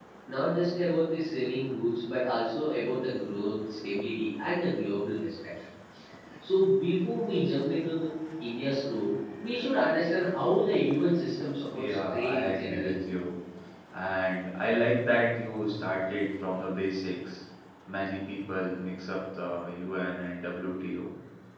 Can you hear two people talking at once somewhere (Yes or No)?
Yes